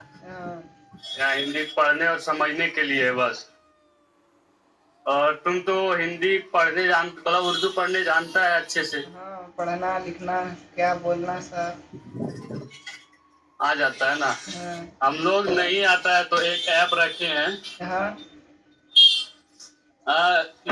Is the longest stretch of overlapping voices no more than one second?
Yes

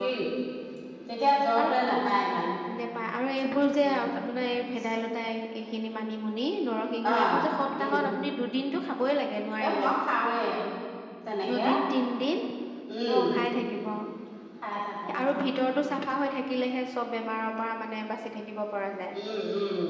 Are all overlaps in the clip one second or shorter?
Yes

